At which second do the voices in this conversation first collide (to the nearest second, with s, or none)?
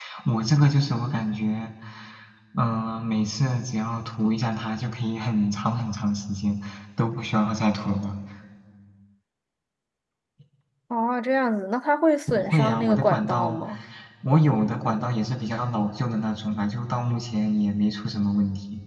12 s